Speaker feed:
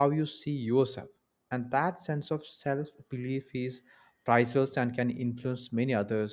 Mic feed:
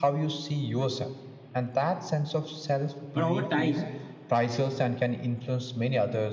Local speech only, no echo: But over time,

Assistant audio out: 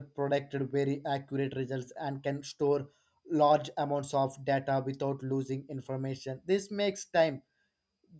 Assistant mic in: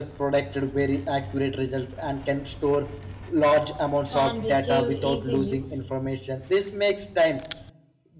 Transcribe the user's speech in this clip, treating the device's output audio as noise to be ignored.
and retrieved easily.

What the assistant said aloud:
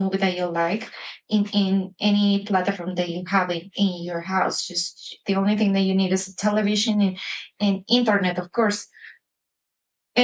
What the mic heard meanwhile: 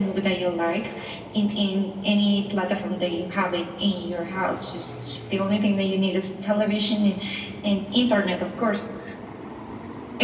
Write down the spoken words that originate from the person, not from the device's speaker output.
none

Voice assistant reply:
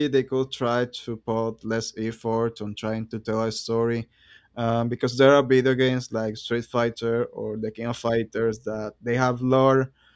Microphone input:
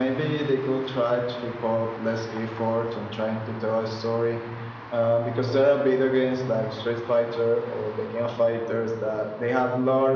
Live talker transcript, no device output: none

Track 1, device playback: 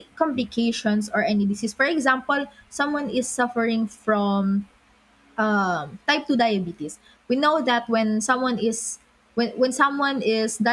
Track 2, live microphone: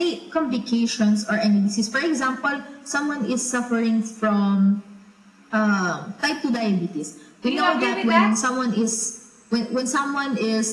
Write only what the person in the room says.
Do you agree with that?

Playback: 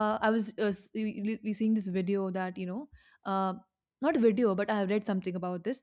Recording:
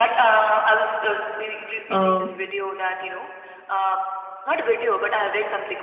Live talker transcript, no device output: uh,

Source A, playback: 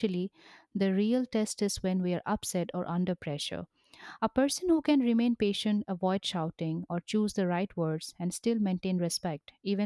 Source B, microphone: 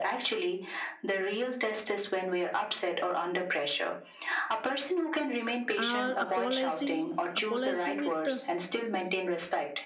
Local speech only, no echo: or apologizing, apologizing with uh,

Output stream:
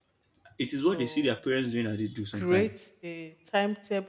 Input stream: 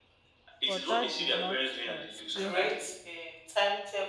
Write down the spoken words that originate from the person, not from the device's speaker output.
but that did not uh, still help

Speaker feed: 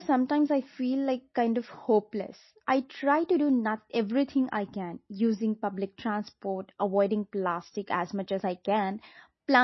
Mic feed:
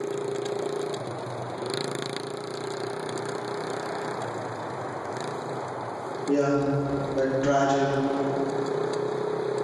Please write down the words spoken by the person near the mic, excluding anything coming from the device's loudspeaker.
Yeah, that tragic,

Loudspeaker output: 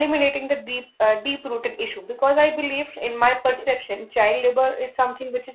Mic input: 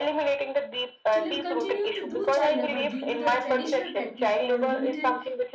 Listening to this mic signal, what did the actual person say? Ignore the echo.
children continue to do child labor due to the traditional practice or limited

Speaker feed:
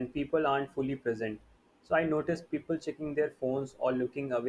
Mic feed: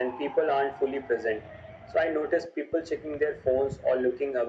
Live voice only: none

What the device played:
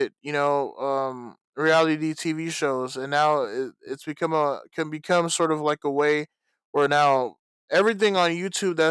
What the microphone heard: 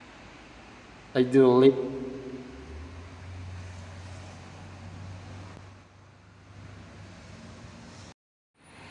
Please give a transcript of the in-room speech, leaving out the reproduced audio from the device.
i do believe

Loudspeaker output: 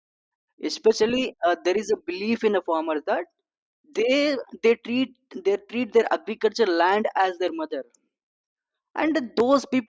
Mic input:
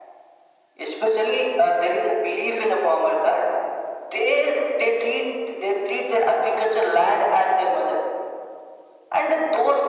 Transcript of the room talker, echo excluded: none

